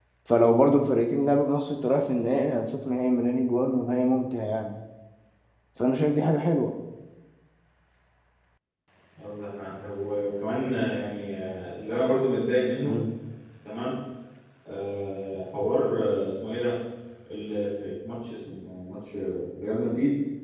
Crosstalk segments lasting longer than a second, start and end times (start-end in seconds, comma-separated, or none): none